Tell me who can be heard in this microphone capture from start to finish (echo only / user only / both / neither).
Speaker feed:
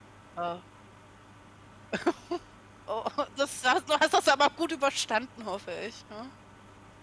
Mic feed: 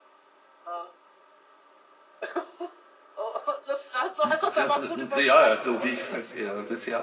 both